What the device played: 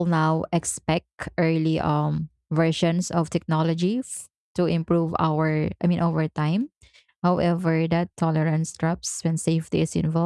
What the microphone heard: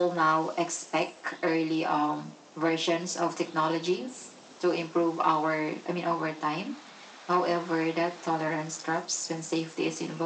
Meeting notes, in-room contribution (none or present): none